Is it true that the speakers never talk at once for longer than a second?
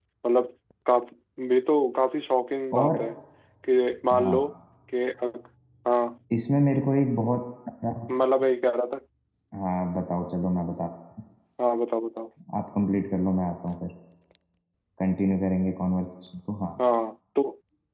Yes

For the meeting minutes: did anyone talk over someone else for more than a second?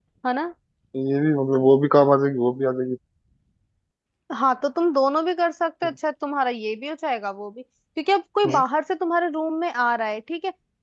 No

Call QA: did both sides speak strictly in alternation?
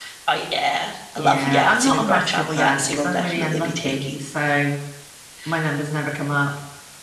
No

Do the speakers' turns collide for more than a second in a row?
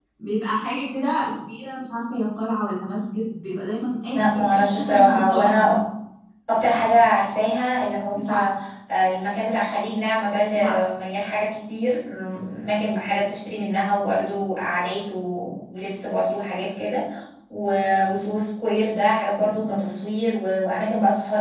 Yes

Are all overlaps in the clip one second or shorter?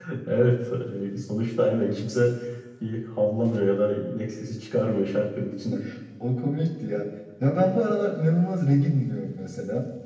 Yes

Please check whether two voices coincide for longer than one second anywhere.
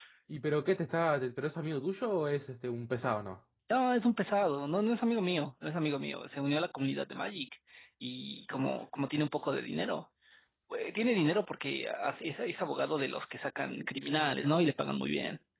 No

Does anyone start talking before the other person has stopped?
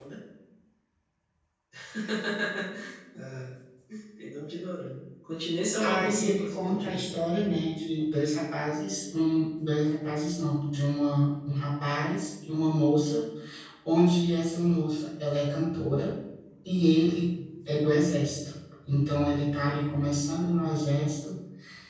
Yes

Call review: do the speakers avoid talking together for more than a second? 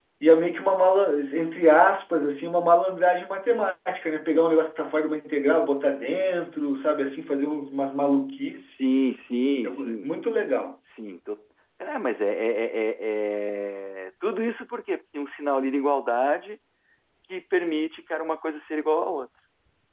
Yes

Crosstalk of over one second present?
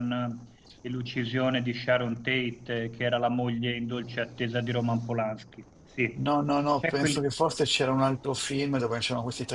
No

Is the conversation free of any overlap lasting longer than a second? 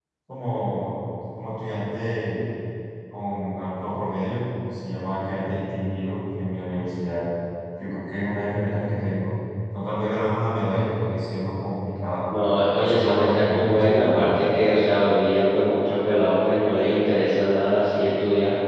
No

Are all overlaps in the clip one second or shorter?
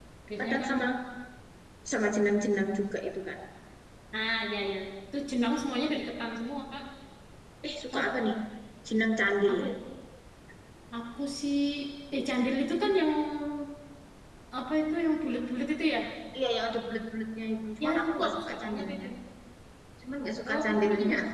No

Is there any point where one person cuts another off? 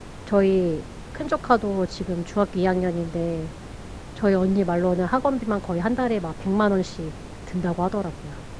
No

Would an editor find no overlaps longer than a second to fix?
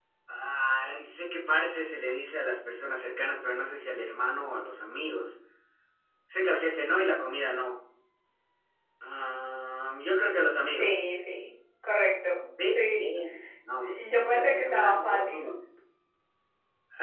No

